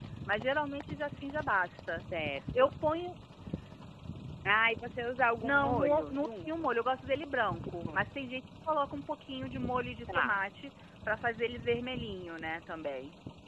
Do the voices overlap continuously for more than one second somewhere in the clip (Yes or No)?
Yes